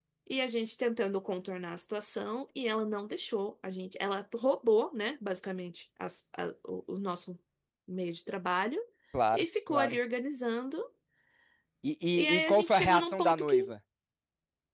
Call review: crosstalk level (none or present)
present